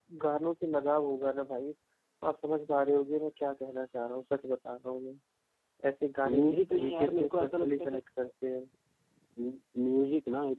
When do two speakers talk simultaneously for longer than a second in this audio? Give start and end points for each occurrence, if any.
6.3-8.0

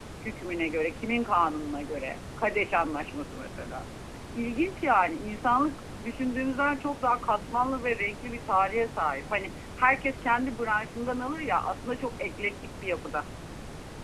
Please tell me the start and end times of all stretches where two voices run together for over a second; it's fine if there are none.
none

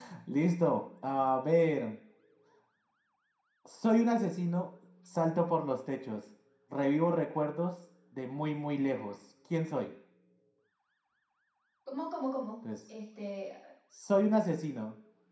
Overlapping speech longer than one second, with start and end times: none

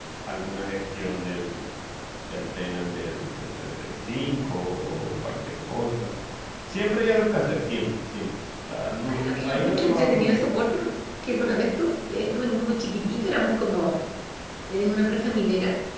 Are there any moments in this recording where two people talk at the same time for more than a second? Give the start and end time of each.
9.1-10.4

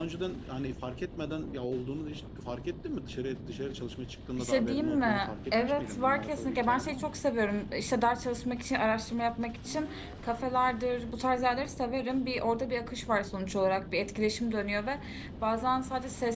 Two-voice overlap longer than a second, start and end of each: 4.4-7.2

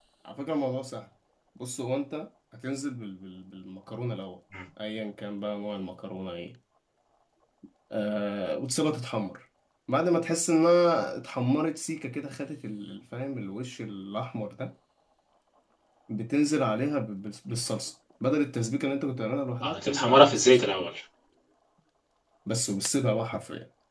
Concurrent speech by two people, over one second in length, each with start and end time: 19.6-20.9

